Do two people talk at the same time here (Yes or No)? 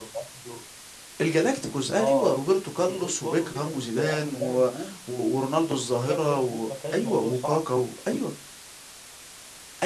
Yes